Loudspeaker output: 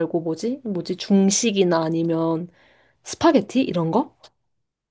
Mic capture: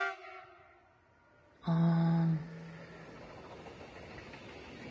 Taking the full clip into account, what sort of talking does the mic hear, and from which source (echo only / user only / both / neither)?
user only